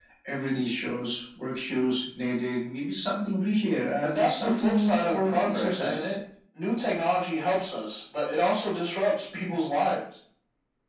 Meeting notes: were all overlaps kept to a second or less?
No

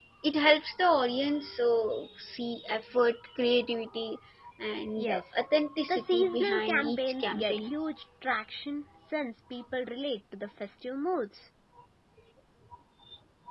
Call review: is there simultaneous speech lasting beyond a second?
Yes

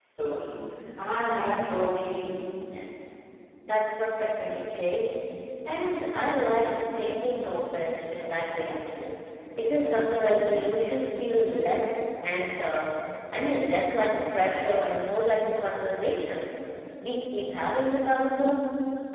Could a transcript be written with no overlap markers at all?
Yes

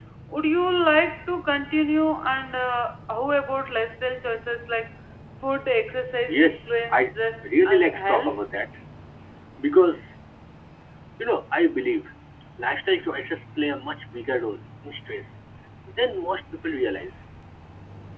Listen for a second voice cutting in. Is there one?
Yes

